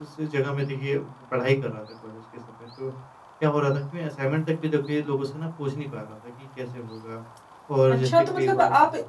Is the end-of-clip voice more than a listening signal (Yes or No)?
Yes